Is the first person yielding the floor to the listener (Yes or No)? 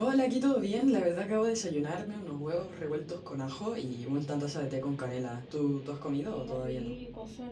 Yes